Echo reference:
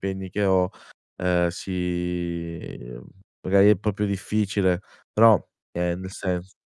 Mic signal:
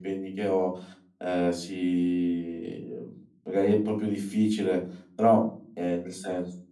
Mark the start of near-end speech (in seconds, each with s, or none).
none